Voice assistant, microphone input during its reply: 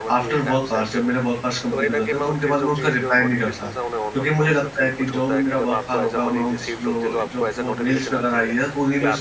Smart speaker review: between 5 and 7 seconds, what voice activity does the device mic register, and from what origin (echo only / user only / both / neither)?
both